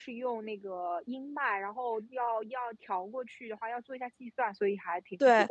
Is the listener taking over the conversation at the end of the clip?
Yes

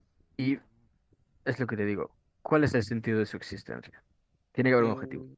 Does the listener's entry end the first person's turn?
Yes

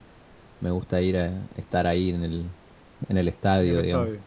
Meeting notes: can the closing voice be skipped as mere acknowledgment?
No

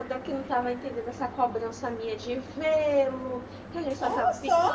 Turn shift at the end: No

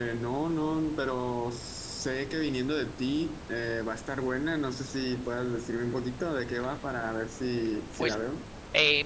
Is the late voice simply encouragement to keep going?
No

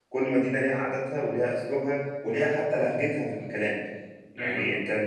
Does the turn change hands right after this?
No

